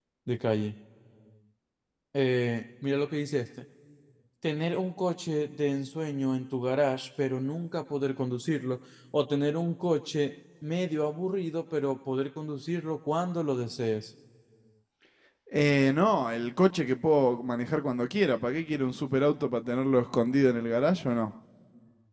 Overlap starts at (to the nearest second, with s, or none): none